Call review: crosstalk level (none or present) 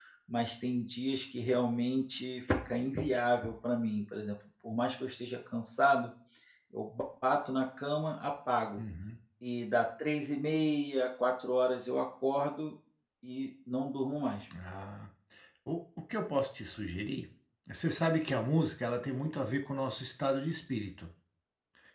none